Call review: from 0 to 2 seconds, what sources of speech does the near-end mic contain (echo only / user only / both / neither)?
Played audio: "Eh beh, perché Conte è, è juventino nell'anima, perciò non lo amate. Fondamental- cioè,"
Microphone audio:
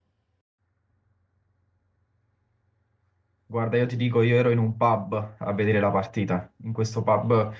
neither